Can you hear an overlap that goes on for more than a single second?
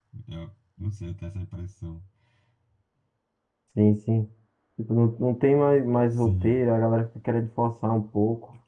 No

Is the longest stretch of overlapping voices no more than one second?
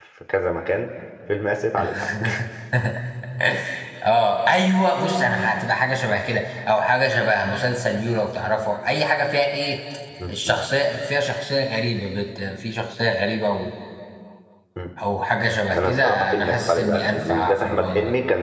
No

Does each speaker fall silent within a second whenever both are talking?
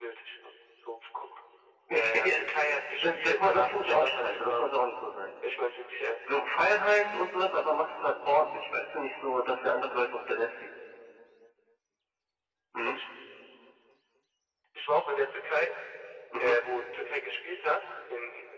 No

